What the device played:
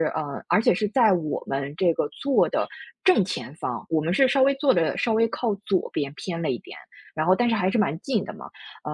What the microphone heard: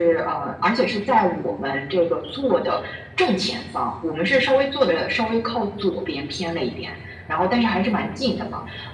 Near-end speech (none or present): none